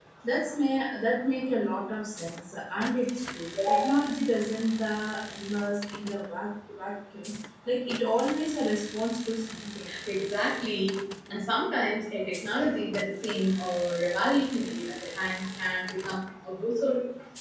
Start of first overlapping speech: none

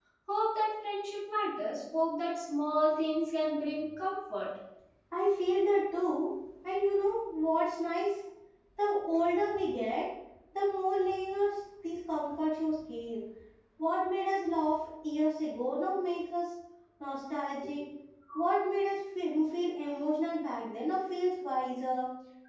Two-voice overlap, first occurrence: none

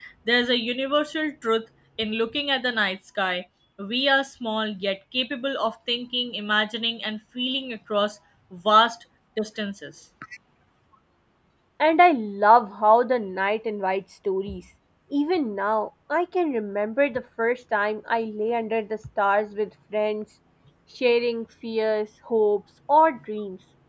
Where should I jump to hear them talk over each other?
none

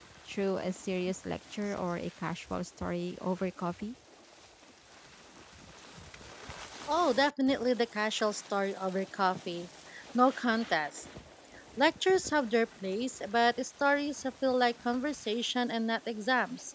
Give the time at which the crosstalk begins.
none

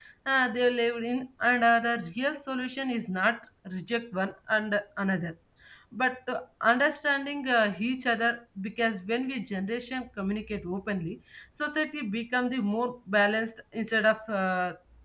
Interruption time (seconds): none

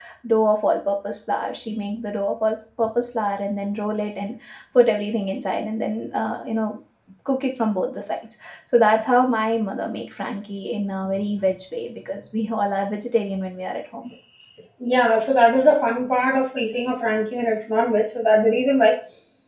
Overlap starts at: none

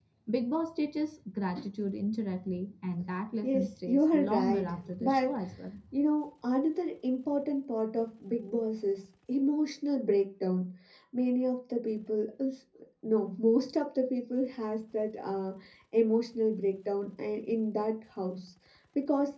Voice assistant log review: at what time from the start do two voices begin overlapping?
3.4 s

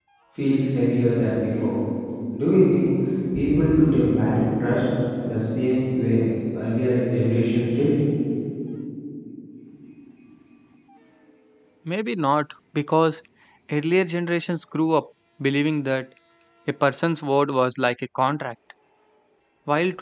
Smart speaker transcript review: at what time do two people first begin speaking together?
none

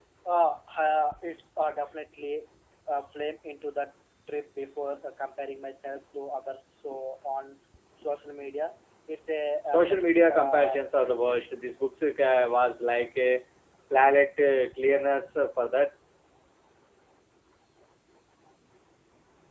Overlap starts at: 9.7 s

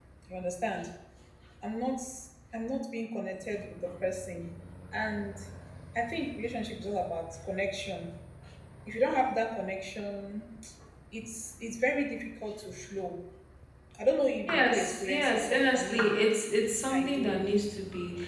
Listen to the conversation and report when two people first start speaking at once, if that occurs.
14.5 s

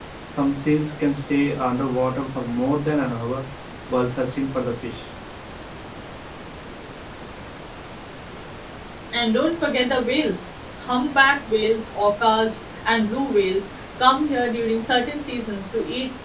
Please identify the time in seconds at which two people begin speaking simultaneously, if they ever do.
none

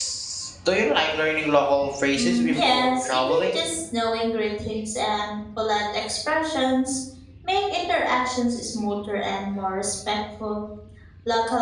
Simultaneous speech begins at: 2.2 s

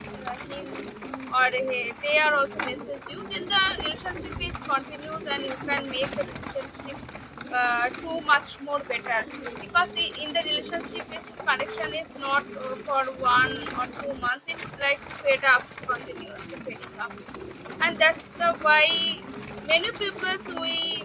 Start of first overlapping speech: none

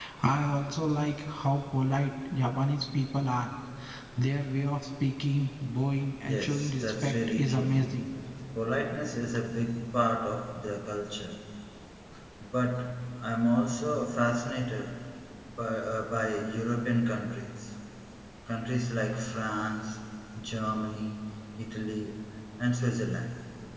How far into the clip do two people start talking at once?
6.2 s

